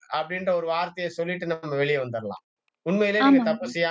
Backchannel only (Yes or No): Yes